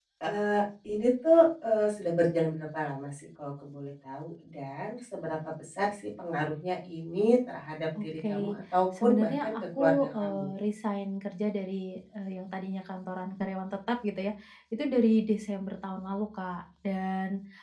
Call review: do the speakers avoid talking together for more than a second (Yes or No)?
No